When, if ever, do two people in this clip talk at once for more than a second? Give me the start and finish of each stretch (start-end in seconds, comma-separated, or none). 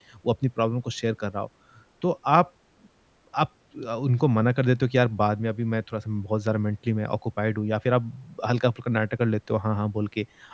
none